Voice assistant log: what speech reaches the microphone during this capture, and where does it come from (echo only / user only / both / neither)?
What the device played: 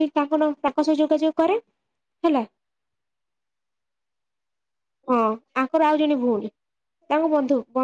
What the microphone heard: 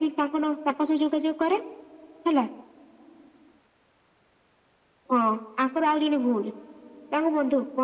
echo only